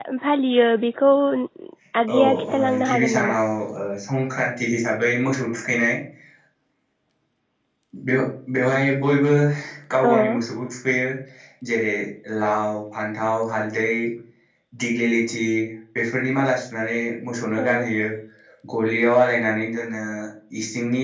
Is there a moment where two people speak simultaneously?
Yes, from 2.1 s

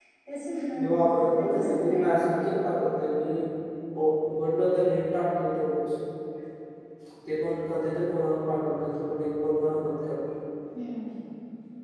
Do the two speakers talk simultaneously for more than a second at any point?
Yes, from 0.8 s

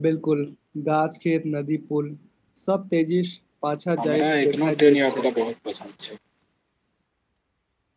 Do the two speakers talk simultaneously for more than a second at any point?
Yes, from 4.0 s

